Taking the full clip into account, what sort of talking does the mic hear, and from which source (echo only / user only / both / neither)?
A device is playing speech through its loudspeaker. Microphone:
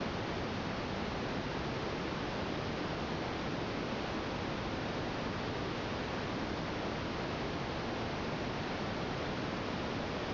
neither